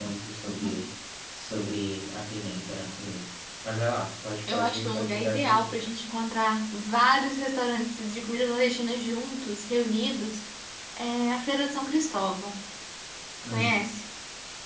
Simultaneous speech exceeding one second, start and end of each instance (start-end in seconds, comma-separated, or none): 4.5-6.0